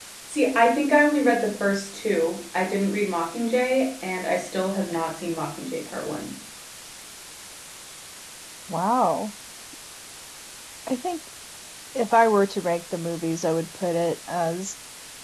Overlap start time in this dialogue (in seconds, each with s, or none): none